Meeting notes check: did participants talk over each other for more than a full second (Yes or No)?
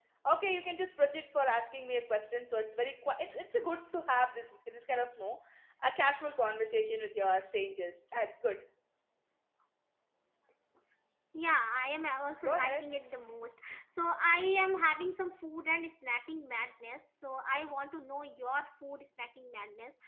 No